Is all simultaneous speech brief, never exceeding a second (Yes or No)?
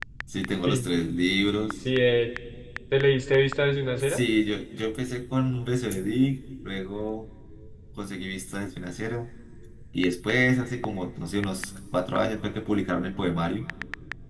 Yes